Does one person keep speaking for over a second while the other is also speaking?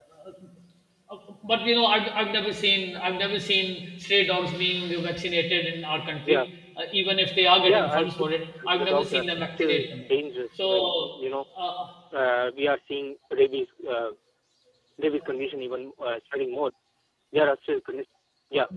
Yes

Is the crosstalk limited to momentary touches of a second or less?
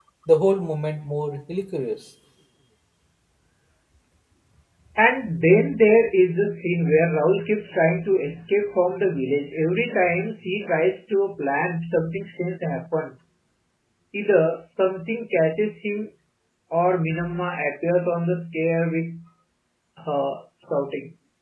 Yes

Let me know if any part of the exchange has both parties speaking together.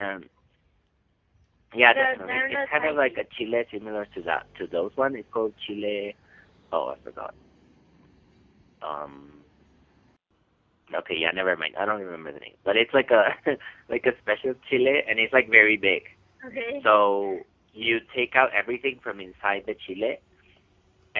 Yes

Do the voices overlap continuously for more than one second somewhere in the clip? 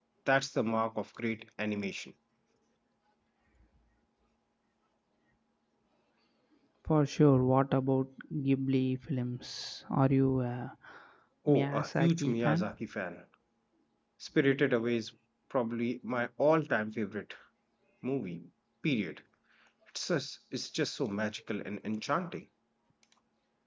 Yes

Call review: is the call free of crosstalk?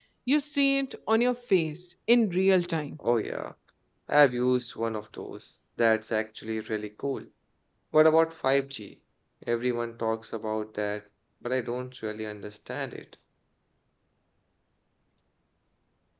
Yes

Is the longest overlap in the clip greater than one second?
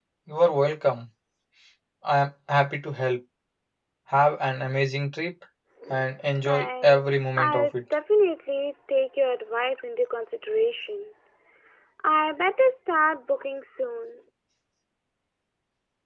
Yes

